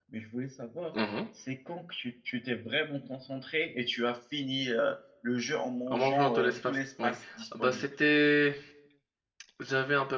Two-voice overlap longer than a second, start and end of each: 5.9-7.1

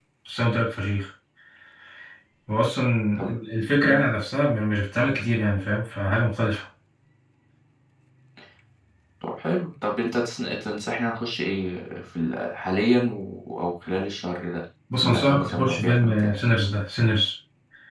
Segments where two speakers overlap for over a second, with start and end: 15.0-16.3

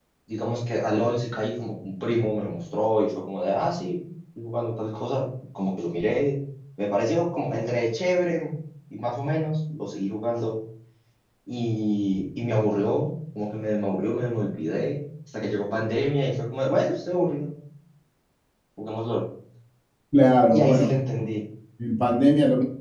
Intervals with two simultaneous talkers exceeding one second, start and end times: none

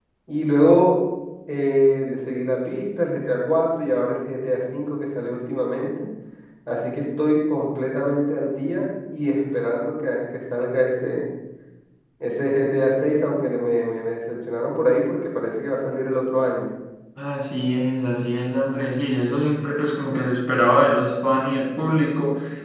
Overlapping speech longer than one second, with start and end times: none

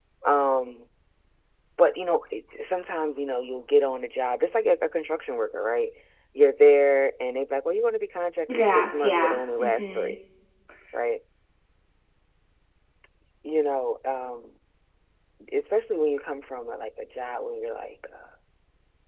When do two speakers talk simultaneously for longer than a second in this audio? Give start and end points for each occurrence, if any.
8.5-10.1

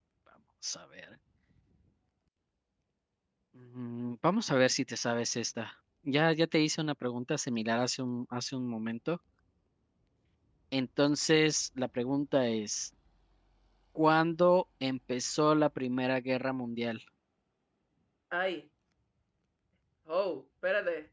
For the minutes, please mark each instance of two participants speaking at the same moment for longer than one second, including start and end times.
none

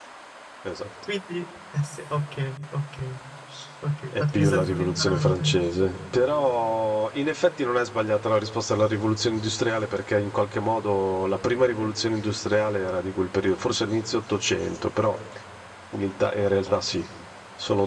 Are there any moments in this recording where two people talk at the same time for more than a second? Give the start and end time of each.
4.1-5.6

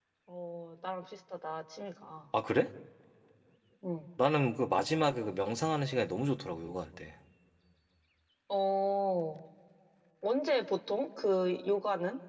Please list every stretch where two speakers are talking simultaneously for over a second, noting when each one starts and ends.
none

